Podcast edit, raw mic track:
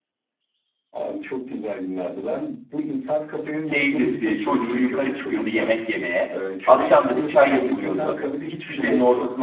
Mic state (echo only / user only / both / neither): both